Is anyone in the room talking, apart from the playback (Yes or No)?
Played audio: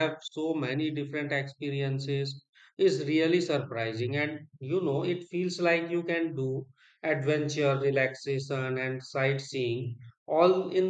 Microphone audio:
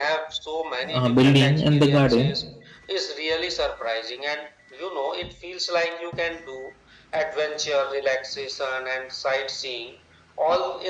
Yes